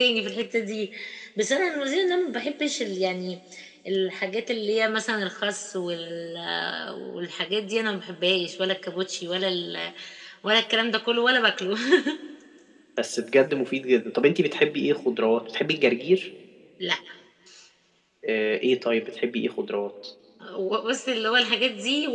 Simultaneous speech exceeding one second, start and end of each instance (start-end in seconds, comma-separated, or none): none